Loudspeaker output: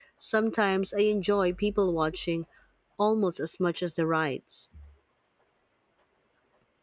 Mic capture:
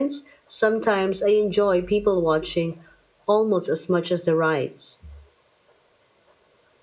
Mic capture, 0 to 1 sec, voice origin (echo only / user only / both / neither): echo only